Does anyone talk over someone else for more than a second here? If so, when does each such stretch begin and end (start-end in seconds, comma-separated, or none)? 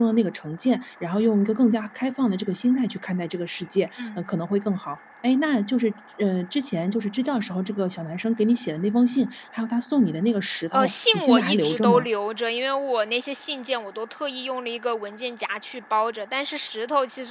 10.7-12.1